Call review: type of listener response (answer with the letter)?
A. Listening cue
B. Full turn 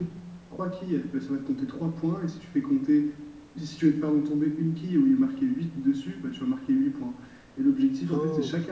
A